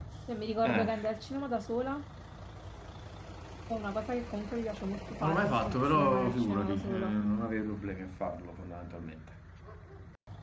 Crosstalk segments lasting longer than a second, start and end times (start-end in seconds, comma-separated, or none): 5.2-7.2